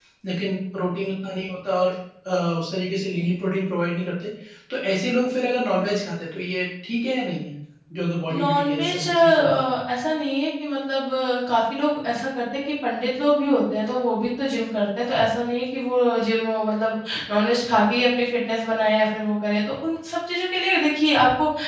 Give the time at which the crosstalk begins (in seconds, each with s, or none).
8.3 s